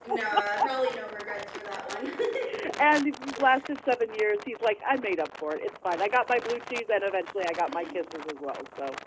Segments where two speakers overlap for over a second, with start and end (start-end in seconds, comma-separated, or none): none